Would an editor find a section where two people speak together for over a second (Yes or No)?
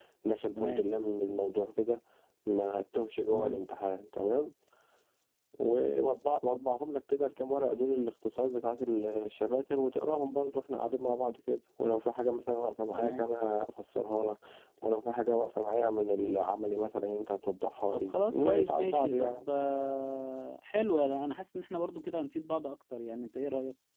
Yes